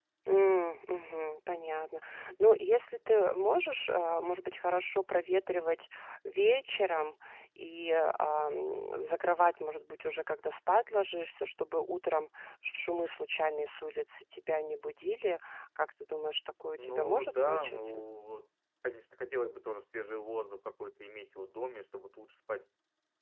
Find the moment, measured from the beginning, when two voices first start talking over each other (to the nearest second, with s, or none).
17 s